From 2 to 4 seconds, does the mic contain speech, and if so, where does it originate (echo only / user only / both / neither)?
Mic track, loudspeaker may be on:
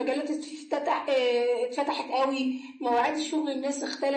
echo only